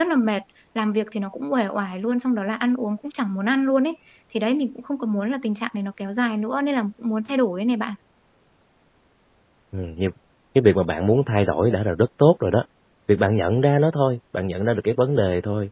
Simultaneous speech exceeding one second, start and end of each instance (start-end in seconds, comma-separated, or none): none